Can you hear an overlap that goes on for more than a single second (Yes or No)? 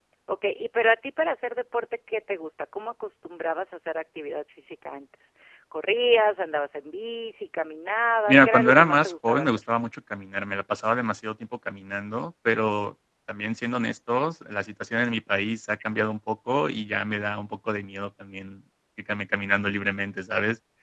Yes